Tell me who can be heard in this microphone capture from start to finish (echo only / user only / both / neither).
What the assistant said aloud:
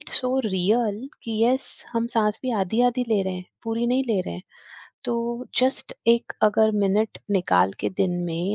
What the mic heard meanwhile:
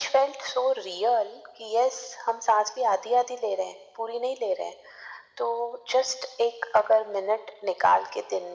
echo only